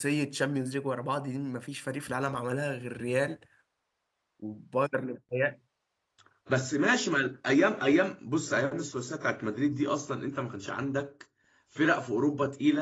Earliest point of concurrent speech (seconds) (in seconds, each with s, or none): none